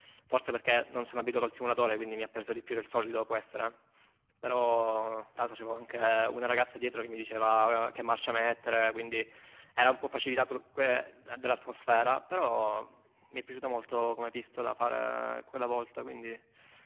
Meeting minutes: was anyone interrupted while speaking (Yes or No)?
No